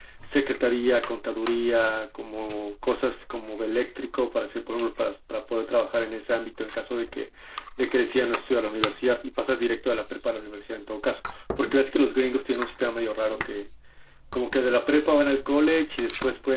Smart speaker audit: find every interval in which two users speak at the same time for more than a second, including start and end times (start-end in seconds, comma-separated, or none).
none